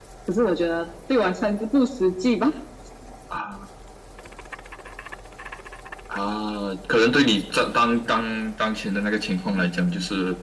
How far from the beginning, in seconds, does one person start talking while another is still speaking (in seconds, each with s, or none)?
none